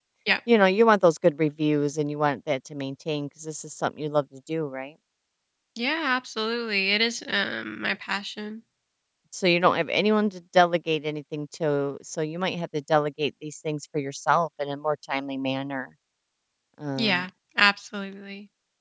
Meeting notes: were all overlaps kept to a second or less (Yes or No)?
Yes